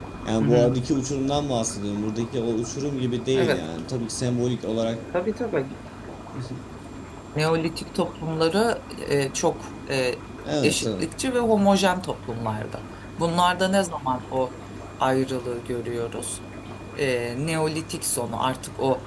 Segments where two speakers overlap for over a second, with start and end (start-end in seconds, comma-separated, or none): none